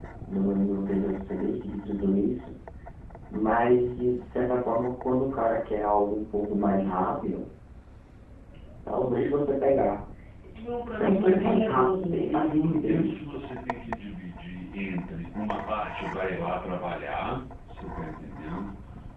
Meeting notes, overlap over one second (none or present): present